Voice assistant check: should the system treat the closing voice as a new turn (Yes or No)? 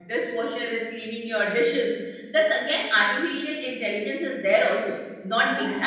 No